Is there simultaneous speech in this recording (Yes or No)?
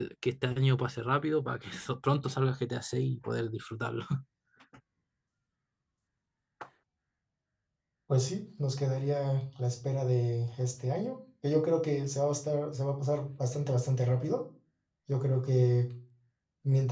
No